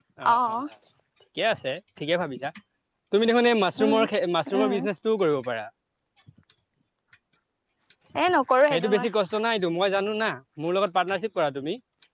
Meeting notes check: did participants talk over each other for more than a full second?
No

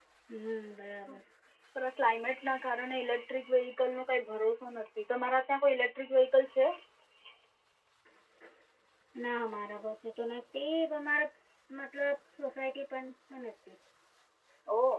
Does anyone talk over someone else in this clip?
No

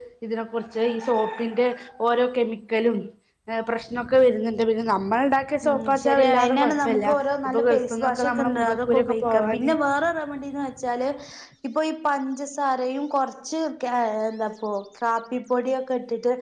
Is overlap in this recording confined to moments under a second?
No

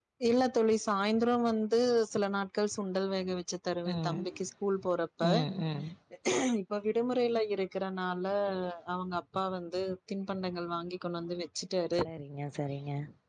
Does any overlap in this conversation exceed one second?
No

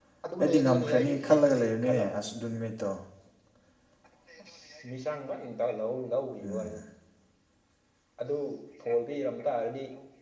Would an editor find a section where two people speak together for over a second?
Yes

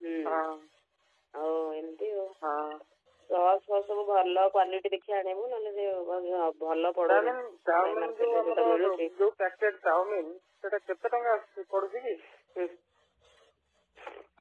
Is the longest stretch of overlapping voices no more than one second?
No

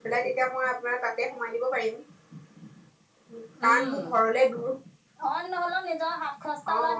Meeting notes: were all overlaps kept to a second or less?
Yes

